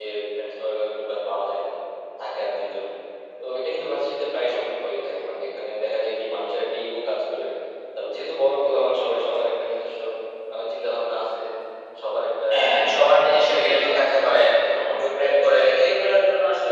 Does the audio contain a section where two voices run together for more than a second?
Yes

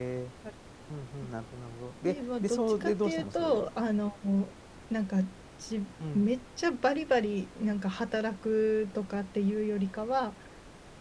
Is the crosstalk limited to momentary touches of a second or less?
No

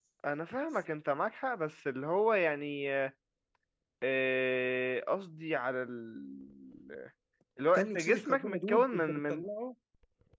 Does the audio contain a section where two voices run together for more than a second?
Yes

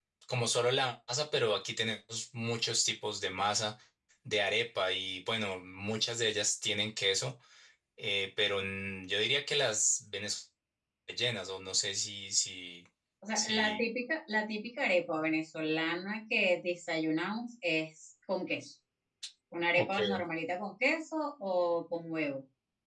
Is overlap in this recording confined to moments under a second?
Yes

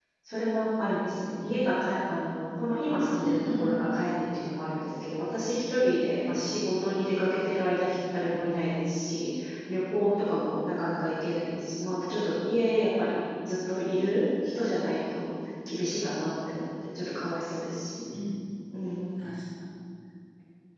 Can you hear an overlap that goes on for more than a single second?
No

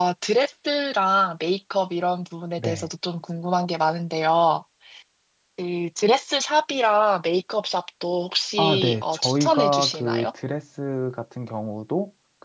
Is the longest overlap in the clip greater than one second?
Yes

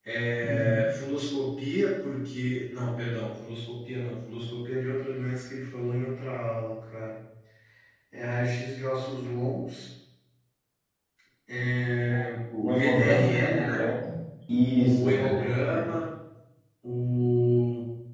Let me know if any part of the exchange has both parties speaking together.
Yes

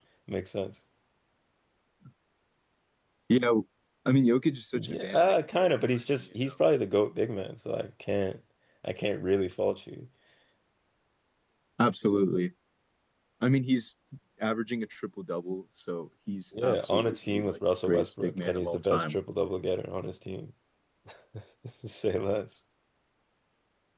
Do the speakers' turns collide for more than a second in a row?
Yes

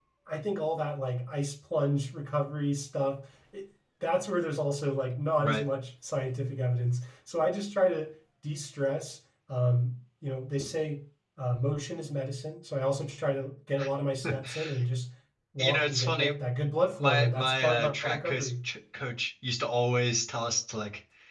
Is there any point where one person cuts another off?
Yes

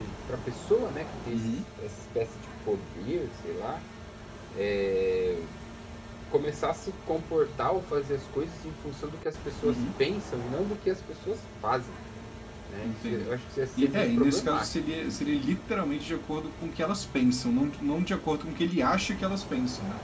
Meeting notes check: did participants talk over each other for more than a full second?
Yes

